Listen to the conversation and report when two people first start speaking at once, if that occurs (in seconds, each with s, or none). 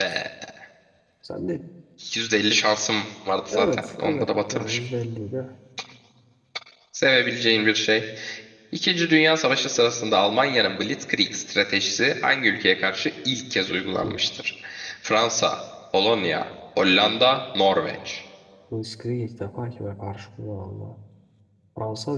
3.5 s